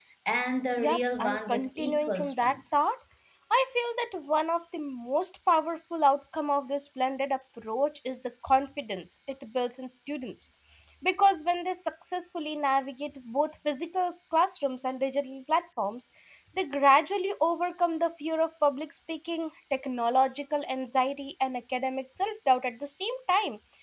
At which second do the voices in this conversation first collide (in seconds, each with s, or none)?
0.8 s